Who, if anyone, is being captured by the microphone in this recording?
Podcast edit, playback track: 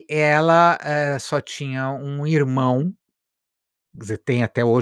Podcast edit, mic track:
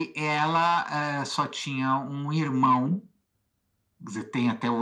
echo only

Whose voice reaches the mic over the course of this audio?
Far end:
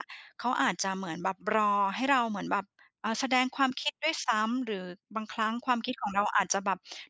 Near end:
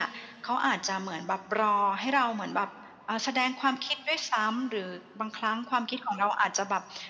echo only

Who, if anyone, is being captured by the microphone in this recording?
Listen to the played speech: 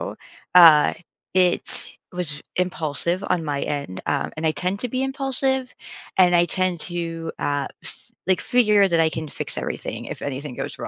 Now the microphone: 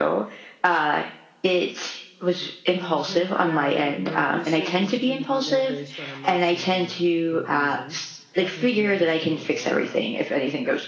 both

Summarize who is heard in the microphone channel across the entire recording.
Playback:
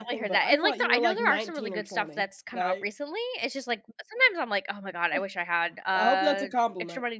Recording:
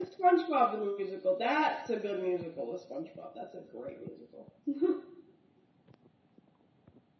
user only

